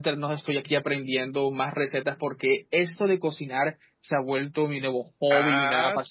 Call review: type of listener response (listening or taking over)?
taking over